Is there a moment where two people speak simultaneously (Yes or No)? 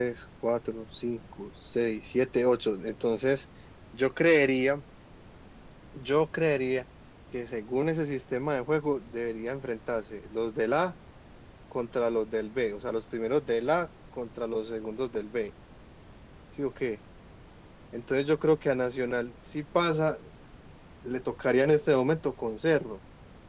No